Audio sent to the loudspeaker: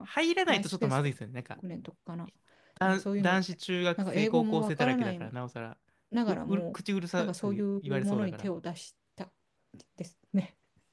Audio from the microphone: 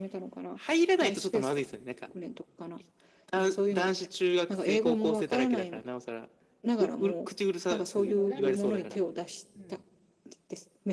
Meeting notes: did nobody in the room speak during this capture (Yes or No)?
No